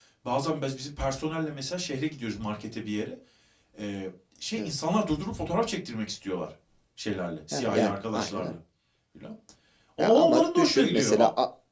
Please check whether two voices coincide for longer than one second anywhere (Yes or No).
Yes